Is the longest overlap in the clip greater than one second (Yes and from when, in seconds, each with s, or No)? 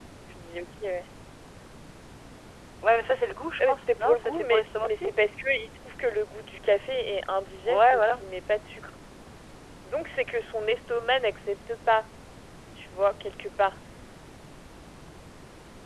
Yes, from 3.6 s